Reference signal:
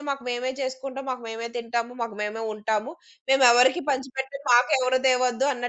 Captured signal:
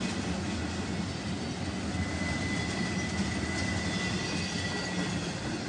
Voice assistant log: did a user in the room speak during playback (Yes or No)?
No